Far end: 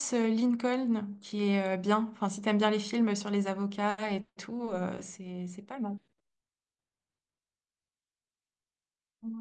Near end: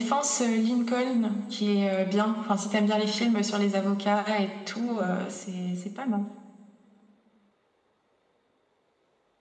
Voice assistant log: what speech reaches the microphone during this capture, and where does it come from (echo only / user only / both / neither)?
echo only